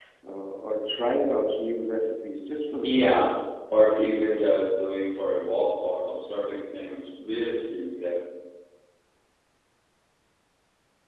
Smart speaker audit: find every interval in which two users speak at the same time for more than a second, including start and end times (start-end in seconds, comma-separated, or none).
none